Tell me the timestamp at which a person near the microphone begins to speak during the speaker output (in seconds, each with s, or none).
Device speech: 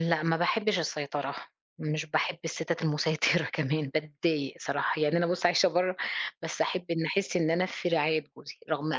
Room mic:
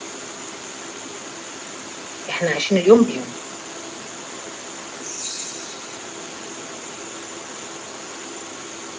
2.3 s